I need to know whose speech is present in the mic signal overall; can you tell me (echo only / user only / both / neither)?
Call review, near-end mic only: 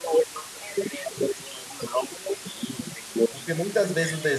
both